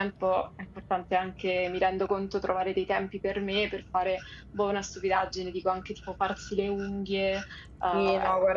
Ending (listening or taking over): taking over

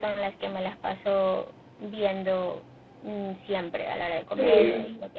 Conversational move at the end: listening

